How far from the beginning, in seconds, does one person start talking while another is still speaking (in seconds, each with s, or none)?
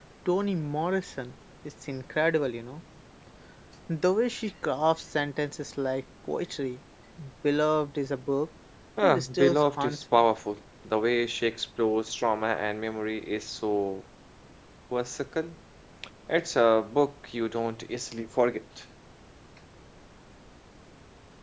9.0 s